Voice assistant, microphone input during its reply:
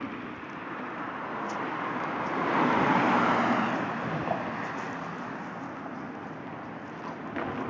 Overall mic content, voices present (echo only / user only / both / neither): neither